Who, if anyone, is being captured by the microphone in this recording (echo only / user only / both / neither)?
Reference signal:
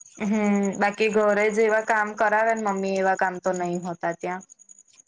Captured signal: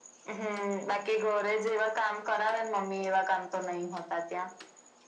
echo only